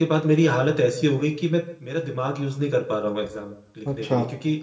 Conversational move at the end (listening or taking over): listening